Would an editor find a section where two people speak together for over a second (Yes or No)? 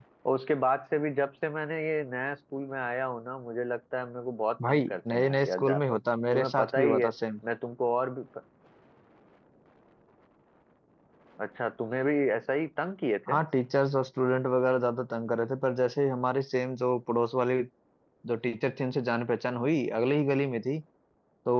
Yes